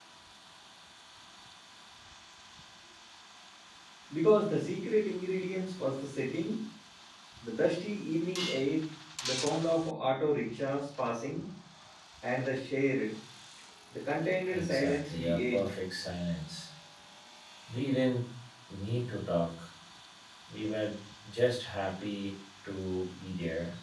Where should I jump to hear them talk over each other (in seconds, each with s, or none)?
14.5 s